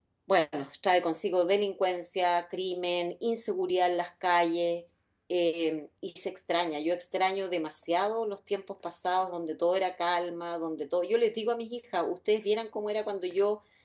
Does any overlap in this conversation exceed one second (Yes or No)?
No